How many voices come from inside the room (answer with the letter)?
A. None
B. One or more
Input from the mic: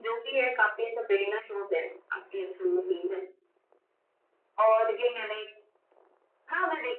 A